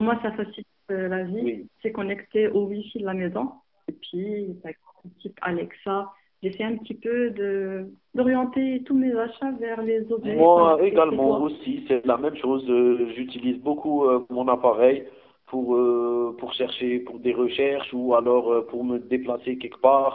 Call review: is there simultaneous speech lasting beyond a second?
Yes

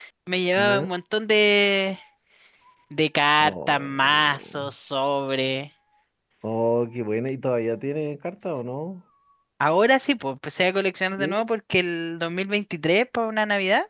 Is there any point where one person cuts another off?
Yes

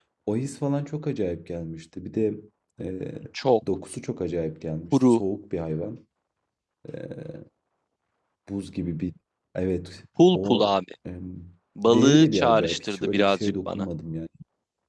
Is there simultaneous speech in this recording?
Yes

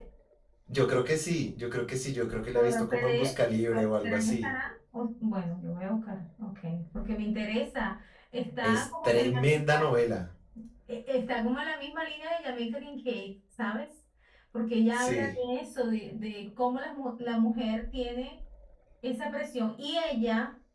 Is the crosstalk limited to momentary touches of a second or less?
No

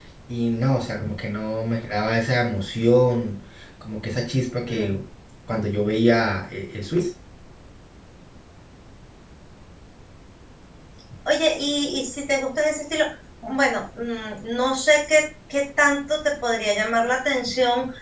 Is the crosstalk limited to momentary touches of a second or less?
Yes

